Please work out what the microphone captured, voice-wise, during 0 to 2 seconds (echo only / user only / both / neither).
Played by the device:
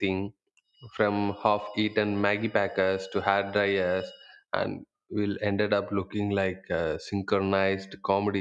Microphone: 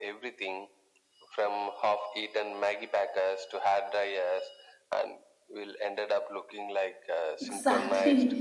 echo only